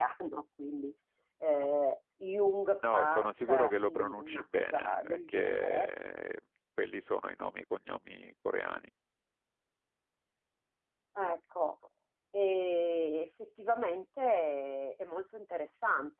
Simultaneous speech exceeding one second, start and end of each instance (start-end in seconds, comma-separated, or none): 2.9-5.9